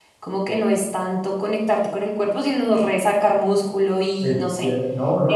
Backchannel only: No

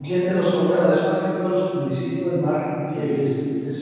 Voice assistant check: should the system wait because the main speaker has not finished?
Yes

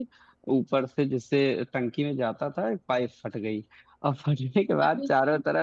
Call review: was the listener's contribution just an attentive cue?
Yes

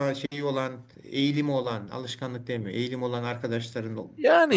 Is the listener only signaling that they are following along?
No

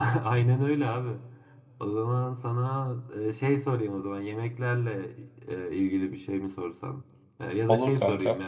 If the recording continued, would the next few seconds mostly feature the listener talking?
No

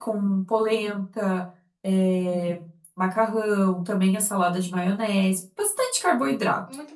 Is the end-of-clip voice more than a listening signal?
Yes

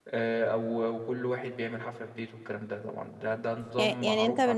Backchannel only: No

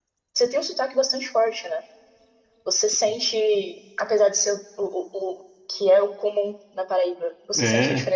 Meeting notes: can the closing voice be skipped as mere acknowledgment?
Yes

